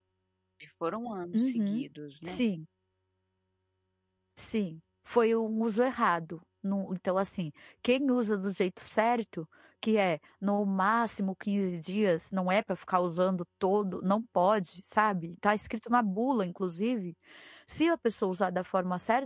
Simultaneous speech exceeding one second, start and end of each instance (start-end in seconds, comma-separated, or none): none